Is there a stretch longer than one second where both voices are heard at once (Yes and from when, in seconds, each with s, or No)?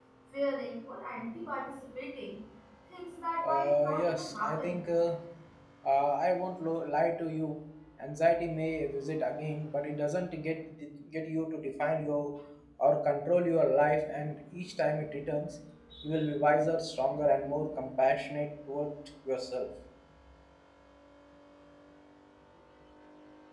Yes, from 3.5 s